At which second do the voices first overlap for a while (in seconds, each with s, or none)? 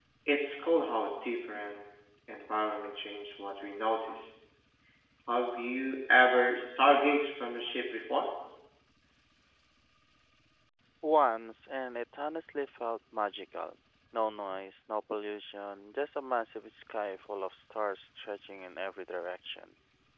none